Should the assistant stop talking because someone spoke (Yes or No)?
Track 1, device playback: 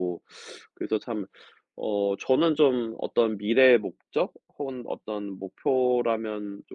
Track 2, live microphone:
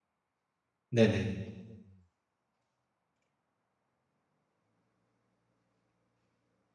Yes